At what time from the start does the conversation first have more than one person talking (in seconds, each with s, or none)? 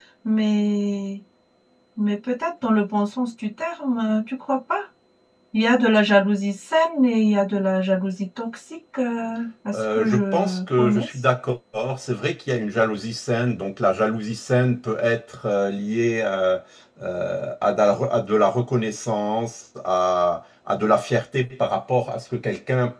9.7 s